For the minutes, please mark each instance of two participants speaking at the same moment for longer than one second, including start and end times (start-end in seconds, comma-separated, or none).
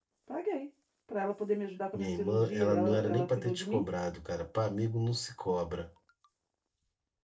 1.9-3.8